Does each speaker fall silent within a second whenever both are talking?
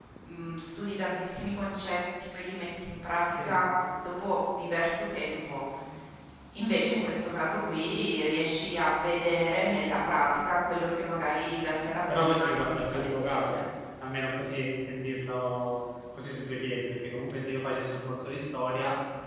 No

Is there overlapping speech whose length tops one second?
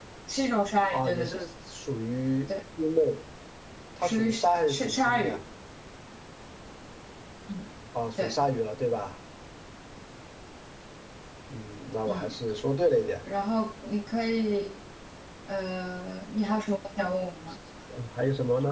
Yes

